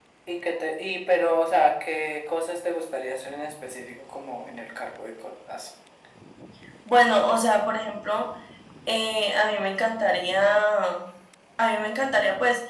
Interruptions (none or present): none